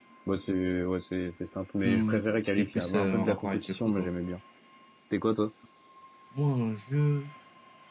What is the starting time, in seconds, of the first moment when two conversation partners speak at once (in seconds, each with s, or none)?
1.8 s